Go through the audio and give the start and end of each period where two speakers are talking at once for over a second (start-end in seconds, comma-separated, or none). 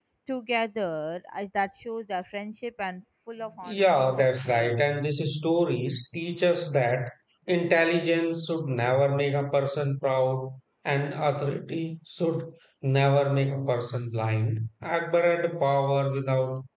3.7-5.0